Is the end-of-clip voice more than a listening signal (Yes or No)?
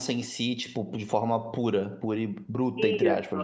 Yes